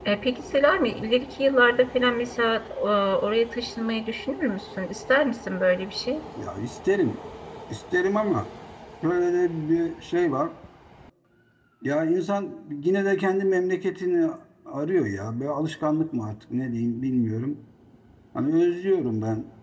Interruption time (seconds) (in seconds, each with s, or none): none